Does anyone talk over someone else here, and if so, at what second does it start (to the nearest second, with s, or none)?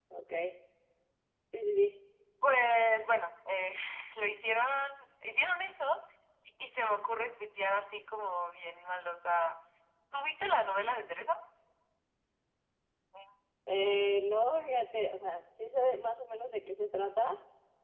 none